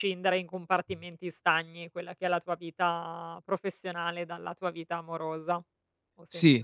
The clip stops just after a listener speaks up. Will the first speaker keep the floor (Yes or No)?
No